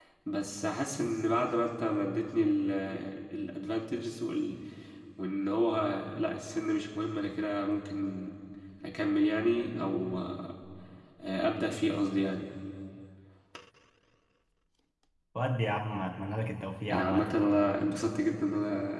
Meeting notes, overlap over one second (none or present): none